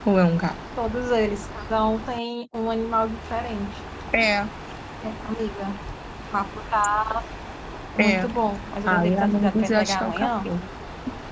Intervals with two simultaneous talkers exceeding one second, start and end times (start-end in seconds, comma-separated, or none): 8.9-10.3